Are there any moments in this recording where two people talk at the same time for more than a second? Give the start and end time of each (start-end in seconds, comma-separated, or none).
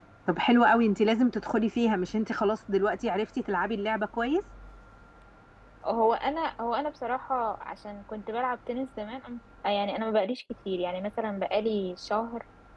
none